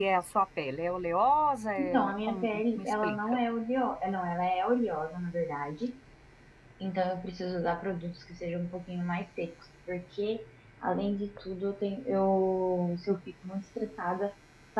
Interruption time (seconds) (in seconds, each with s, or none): 1.8 s